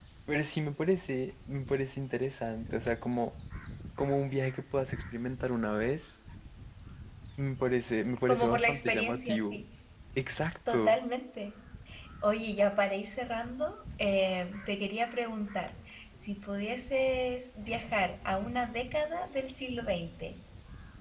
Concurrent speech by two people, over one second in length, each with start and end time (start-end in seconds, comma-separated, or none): 8.3-9.6